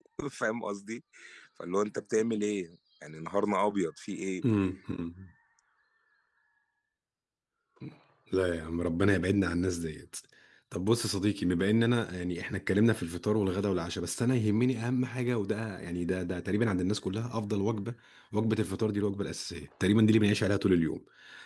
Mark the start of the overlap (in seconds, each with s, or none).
none